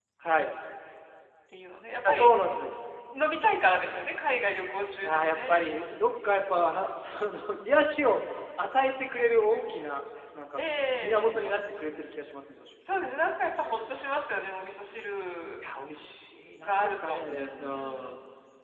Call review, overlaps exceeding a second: present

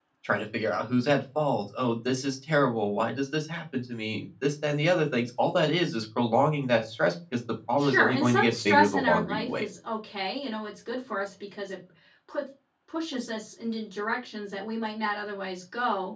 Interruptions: present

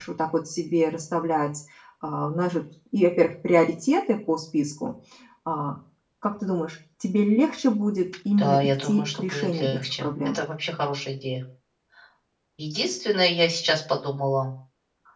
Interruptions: present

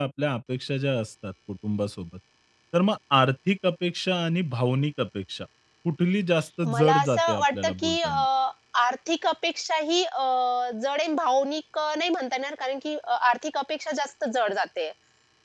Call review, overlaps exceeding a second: present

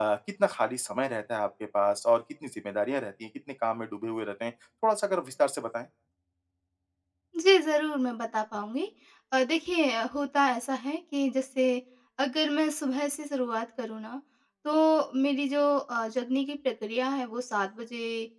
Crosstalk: none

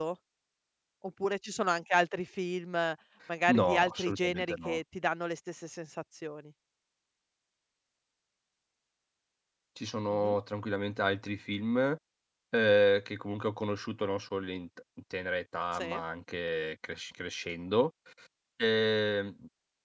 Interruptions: present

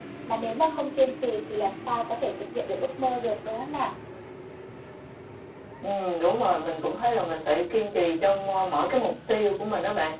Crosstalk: none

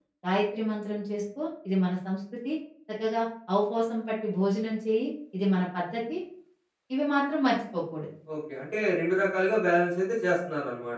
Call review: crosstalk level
none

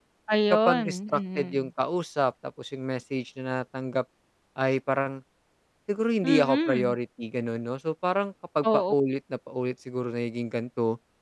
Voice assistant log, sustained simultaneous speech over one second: present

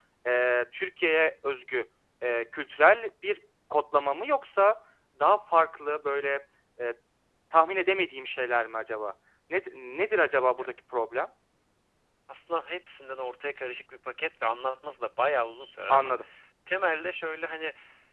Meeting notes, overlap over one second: none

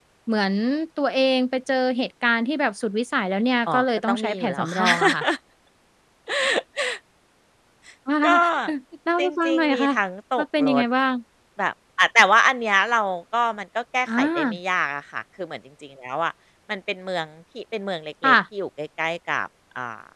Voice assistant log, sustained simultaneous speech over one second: present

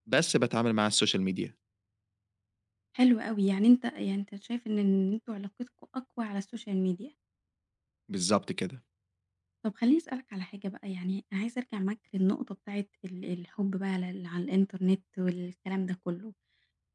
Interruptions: none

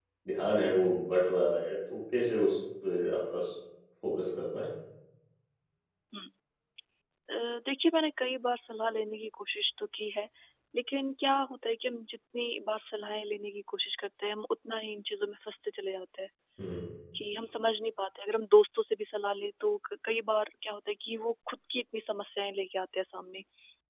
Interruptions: none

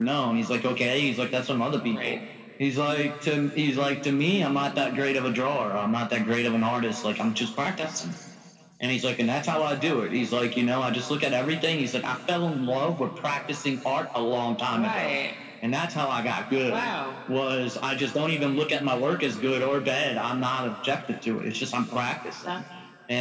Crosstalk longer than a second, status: none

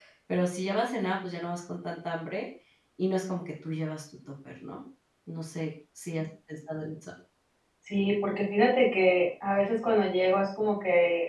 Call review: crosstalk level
none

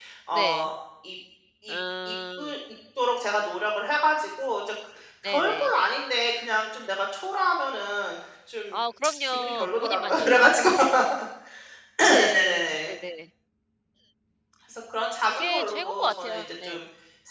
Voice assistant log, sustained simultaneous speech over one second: present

